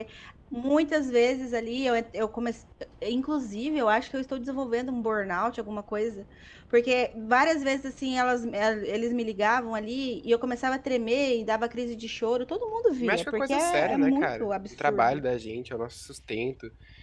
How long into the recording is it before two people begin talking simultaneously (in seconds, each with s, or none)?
13.0 s